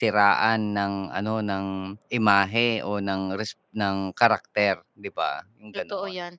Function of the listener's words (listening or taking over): taking over